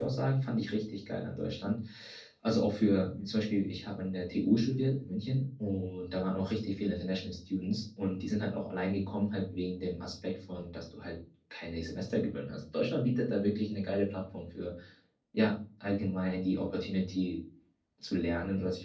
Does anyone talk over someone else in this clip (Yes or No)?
No